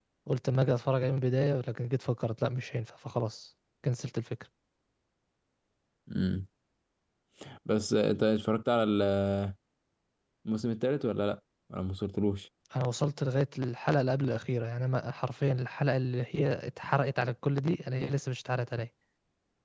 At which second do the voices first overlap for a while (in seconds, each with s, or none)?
none